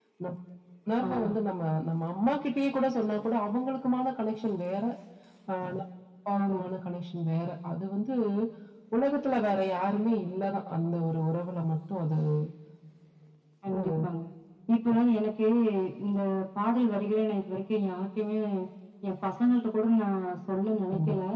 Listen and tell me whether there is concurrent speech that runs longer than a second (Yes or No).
No